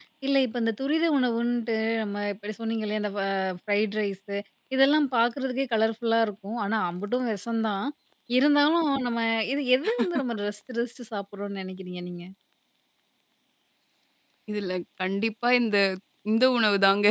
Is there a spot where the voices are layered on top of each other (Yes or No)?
No